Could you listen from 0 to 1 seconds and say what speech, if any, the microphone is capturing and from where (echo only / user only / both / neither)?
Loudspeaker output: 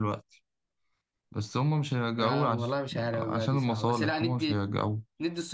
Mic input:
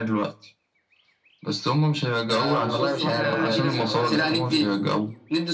echo only